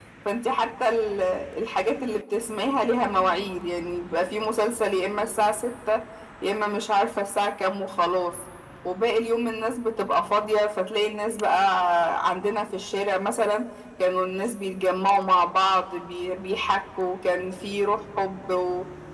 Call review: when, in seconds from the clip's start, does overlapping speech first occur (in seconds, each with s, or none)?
none